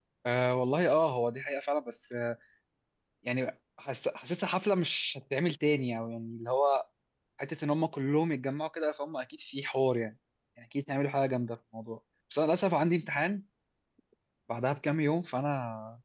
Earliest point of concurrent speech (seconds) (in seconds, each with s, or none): none